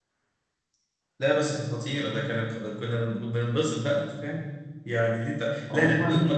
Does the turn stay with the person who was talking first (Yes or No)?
Yes